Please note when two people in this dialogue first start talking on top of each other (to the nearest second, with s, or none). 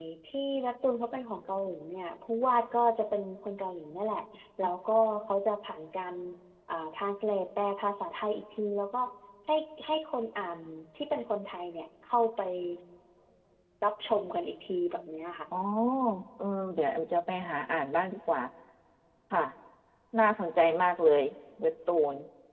none